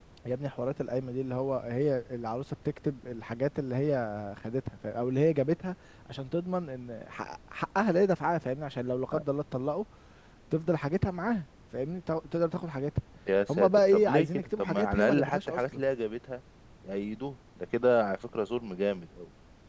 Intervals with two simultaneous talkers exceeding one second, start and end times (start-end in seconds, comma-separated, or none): 13.5-15.8